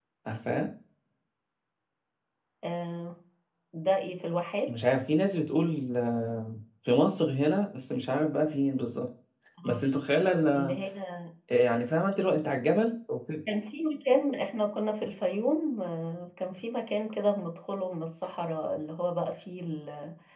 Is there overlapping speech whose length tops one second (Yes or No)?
No